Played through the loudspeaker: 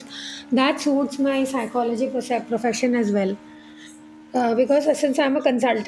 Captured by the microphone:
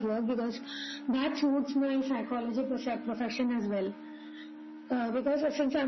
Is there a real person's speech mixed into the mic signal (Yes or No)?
No